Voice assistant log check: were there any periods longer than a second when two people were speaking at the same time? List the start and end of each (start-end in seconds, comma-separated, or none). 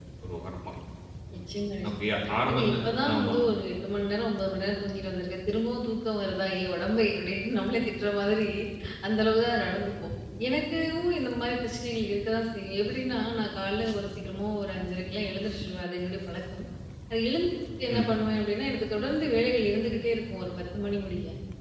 1.9-3.3